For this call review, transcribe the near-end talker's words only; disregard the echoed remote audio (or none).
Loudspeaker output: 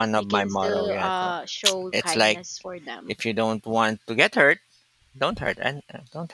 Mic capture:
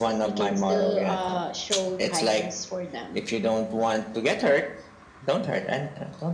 none